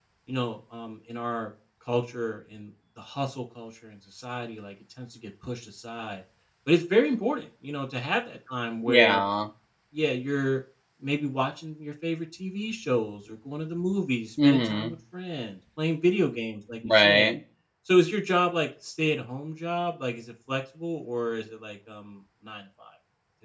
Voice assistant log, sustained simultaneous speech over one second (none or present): none